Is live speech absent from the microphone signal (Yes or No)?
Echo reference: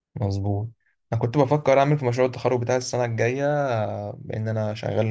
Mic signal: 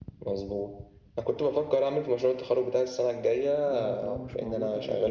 No